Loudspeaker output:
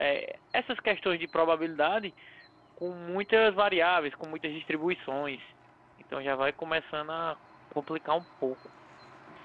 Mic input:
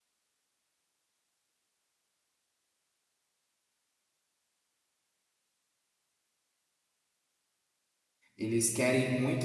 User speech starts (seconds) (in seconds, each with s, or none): 8.4 s